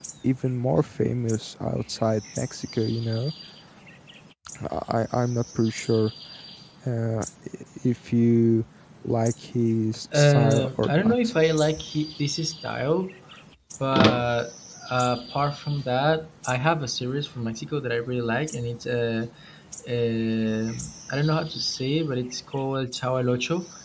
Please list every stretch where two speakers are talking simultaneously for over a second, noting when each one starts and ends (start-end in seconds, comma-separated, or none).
10.1-11.3